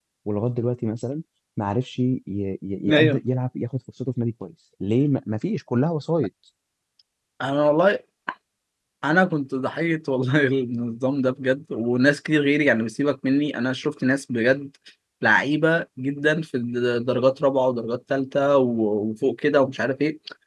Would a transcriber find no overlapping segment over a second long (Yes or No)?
Yes